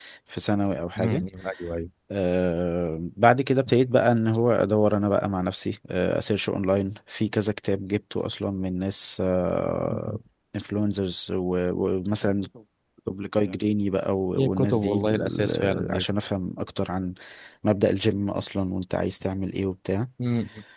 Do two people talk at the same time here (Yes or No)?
Yes